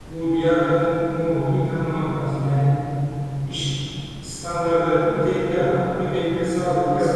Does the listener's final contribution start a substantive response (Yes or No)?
No